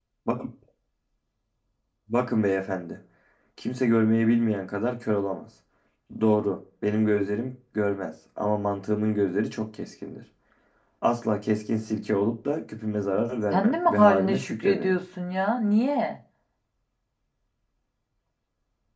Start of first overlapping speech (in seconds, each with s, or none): 13.5 s